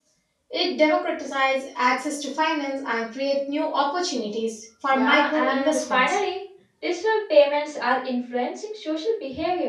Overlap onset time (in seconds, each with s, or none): 4.9 s